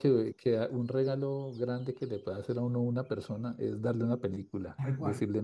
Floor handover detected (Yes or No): No